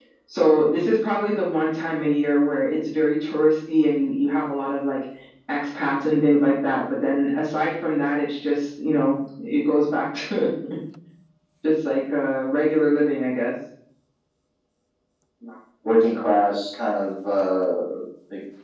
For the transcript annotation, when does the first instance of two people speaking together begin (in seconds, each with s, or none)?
none